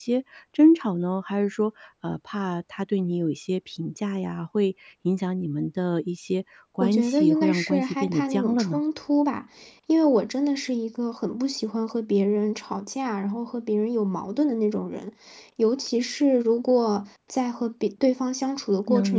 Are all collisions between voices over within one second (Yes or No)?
No